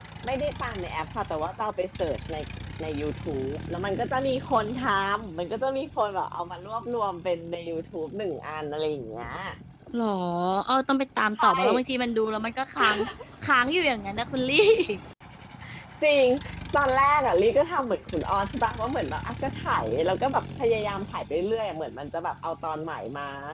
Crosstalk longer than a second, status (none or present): none